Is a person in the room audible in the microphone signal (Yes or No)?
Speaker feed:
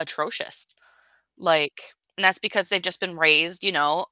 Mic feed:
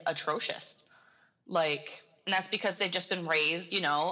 No